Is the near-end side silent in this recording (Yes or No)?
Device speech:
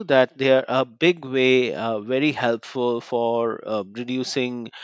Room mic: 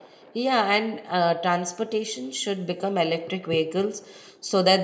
No